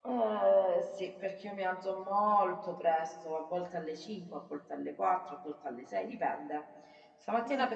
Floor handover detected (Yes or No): No